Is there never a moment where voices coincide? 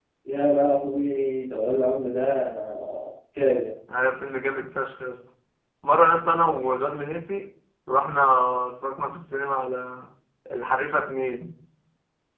Yes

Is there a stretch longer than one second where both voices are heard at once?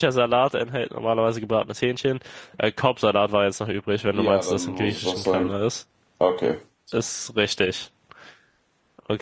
Yes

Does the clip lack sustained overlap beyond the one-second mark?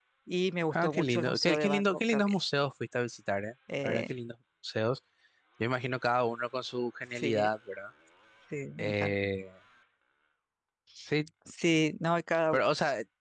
No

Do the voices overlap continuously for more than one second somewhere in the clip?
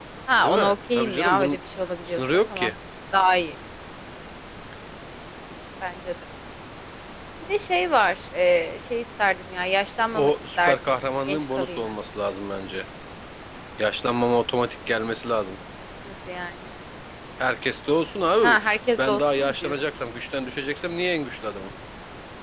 Yes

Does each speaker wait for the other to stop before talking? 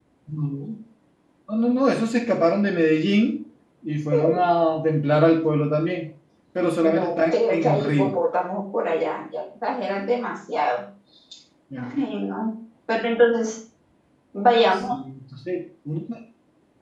No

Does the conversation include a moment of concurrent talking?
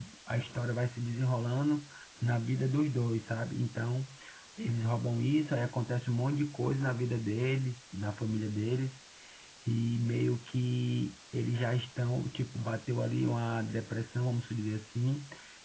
No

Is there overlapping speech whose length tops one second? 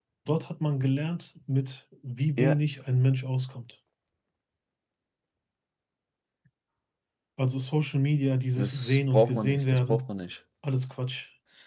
Yes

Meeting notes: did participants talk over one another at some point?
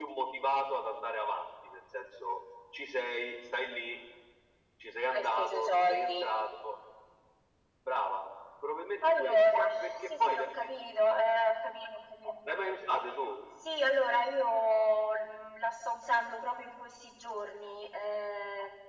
Yes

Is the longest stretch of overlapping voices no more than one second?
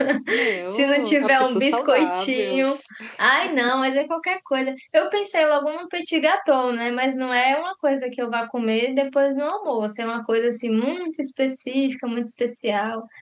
No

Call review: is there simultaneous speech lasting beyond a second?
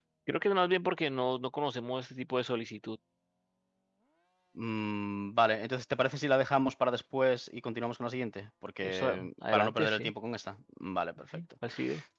Yes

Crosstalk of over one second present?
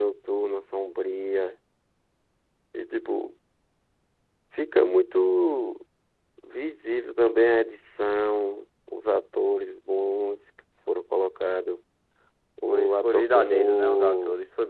Yes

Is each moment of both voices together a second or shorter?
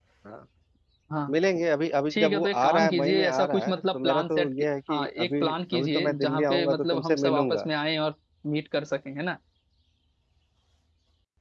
No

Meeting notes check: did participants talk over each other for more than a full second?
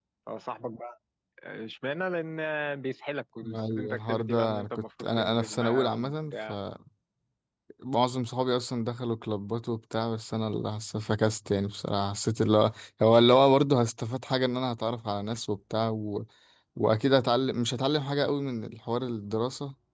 Yes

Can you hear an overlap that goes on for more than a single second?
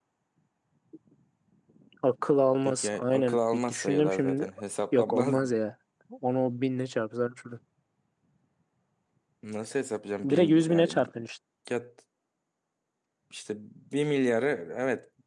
Yes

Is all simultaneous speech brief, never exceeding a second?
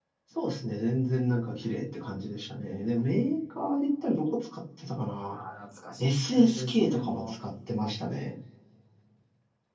No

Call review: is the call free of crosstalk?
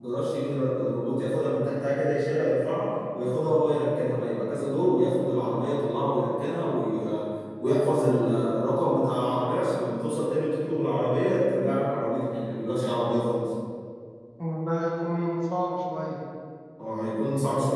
Yes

